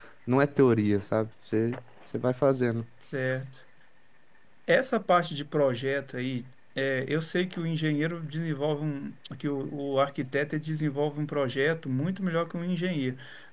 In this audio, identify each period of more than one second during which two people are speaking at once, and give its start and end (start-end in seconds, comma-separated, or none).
none